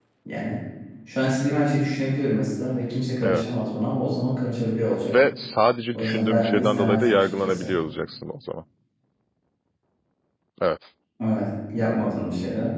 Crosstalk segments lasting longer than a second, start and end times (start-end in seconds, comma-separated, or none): 5.9-7.7